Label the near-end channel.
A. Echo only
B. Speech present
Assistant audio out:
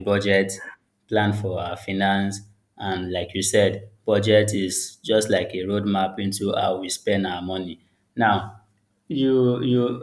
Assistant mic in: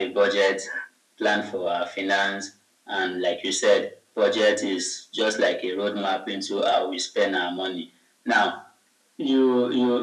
A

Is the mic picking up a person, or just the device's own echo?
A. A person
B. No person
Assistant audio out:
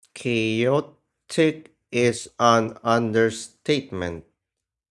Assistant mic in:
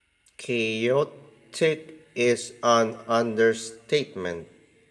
B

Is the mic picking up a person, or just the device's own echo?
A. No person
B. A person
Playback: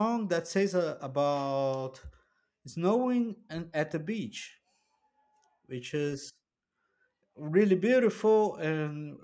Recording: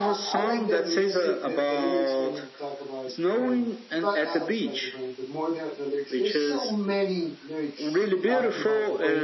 B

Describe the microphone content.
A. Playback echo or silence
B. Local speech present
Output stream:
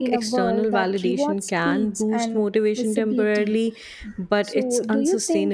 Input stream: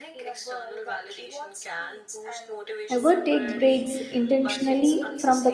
B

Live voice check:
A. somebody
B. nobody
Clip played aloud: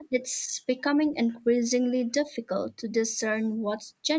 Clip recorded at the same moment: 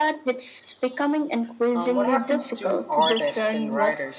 A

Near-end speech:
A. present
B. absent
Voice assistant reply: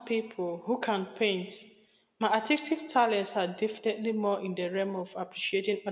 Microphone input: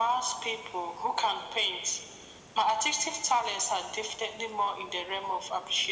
B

